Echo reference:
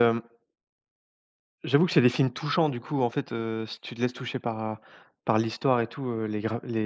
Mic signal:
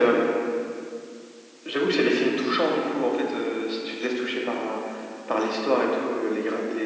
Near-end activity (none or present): none